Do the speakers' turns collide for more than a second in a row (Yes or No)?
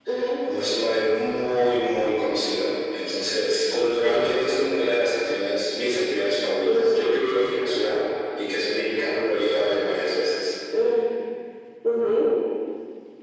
No